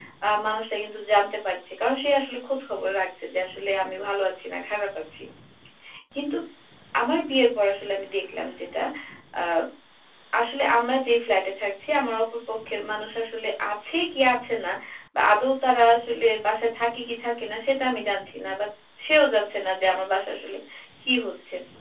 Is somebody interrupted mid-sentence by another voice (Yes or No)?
No